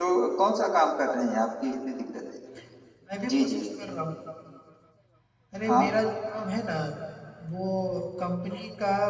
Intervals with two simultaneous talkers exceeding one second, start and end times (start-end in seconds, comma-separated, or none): none